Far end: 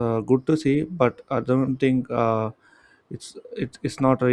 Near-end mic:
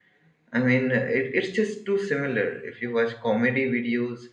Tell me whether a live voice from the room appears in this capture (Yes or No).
Yes